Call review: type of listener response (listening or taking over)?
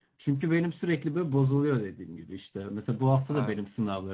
listening